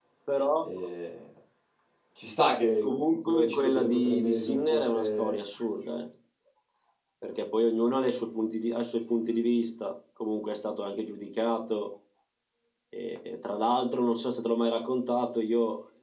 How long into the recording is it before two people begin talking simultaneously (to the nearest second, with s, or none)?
3 s